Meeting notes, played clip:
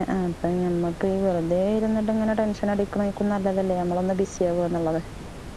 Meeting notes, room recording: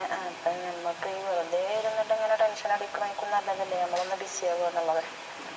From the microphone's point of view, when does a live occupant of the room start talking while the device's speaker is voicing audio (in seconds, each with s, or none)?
none